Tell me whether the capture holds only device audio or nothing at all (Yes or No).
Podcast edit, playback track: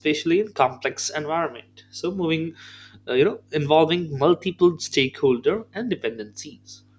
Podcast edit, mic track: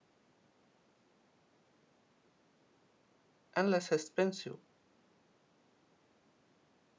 No